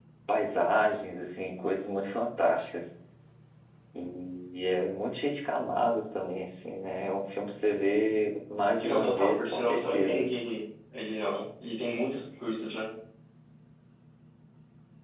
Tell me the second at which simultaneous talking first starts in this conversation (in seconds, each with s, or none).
8.8 s